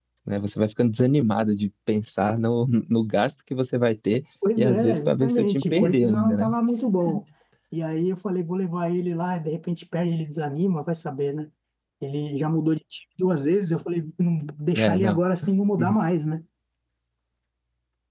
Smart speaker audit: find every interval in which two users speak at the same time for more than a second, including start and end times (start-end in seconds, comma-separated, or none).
4.6-6.5